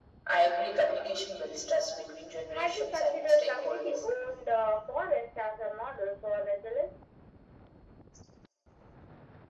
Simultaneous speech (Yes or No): Yes